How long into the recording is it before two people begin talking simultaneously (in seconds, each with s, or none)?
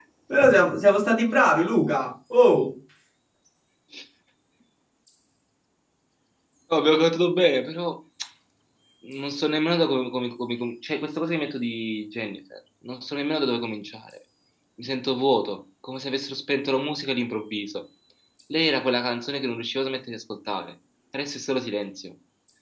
none